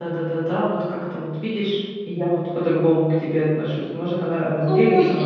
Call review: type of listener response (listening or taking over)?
taking over